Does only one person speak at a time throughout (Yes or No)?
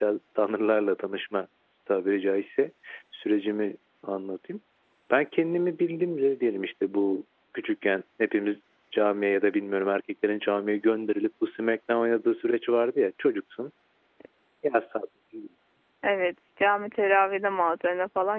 Yes